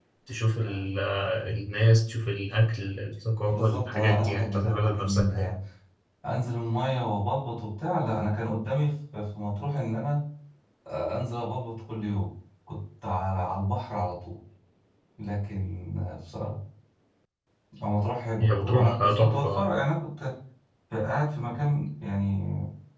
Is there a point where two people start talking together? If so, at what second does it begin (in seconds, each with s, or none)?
3.5 s